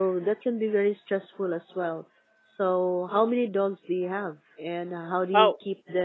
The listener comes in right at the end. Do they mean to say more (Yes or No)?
No